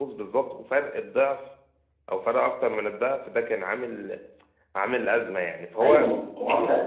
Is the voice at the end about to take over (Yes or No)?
Yes